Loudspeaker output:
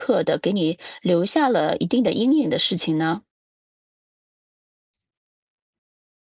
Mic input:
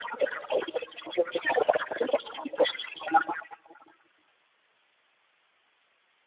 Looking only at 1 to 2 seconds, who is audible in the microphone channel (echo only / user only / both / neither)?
echo only